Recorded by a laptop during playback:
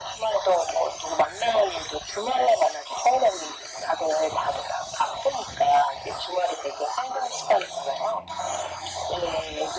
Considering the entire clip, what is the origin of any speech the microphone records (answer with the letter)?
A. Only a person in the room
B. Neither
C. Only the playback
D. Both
C